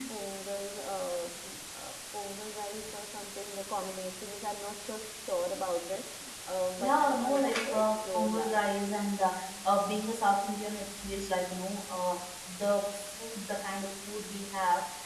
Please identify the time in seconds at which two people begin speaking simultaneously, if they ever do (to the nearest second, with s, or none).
7 s